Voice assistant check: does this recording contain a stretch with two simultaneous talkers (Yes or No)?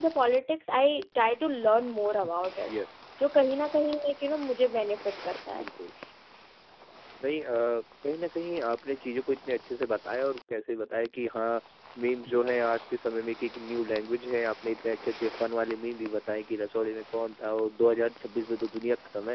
No